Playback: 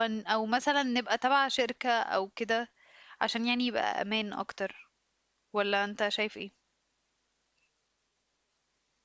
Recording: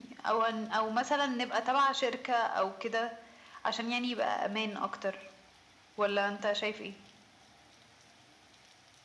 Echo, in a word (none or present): present